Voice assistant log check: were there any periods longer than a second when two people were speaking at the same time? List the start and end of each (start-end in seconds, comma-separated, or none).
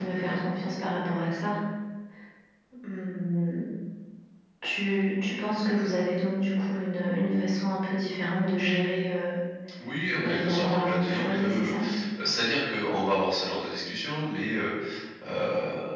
10.2-11.7